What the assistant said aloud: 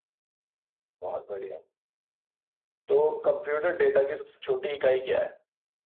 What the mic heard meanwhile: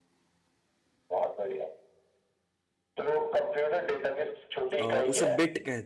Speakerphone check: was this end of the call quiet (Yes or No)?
No